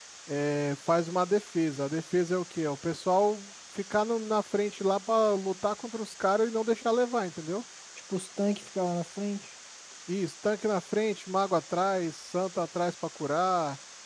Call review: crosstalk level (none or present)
none